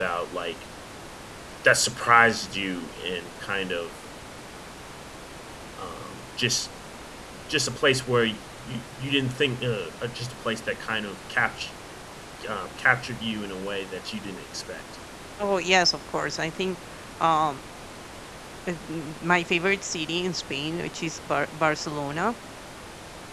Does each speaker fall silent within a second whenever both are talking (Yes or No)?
Yes